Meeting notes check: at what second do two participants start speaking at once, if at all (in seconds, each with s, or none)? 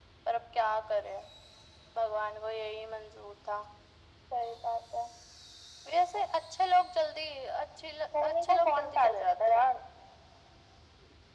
8.2 s